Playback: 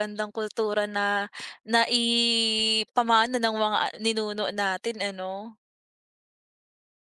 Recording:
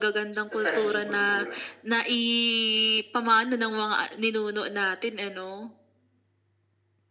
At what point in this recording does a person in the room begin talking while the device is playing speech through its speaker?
0.5 s

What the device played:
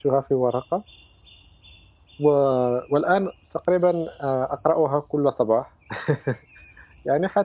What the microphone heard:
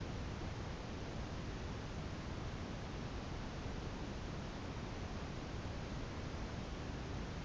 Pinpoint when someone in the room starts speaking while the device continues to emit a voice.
none

